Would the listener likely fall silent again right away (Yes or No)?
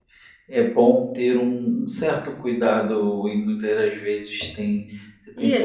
No